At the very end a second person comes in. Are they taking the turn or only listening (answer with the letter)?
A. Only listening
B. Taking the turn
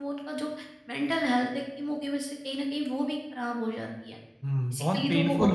B